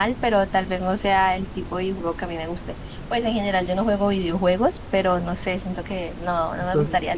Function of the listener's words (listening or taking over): taking over